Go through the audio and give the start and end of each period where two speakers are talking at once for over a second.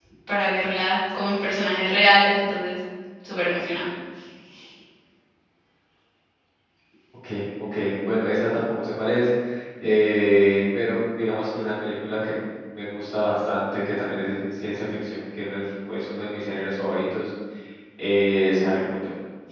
none

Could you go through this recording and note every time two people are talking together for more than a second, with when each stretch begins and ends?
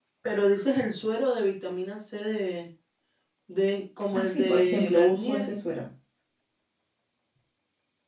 4.1-5.5

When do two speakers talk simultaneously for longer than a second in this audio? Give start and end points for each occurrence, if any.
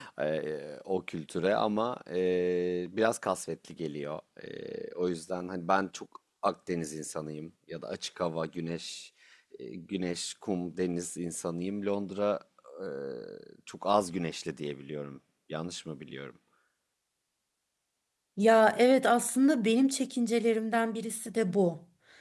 none

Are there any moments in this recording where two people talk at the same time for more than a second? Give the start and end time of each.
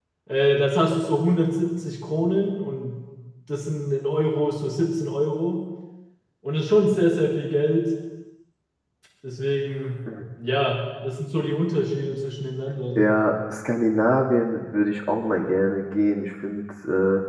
none

